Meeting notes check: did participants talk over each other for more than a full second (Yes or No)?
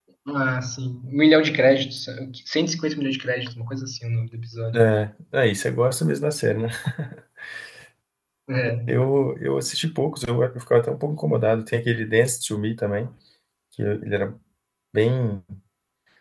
No